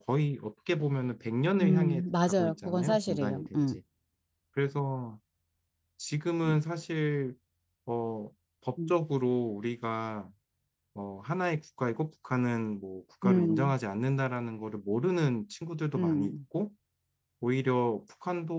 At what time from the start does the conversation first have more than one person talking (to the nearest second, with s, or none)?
2 s